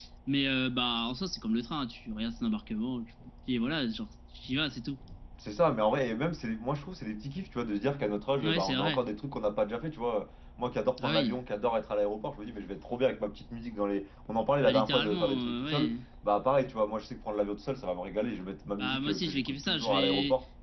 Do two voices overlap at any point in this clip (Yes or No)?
Yes